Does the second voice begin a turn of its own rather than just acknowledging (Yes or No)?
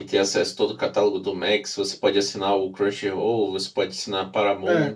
Yes